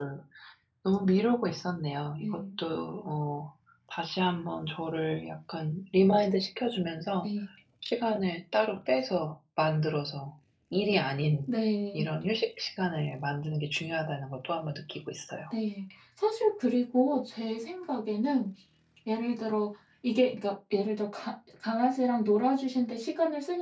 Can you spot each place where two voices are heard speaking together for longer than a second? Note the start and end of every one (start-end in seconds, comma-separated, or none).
none